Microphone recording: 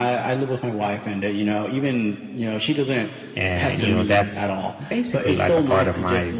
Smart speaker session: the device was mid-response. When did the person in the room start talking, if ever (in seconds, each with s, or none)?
3.3 s